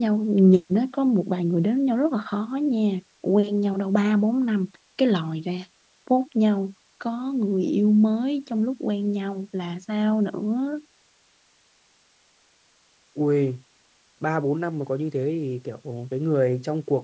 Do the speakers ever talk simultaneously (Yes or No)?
No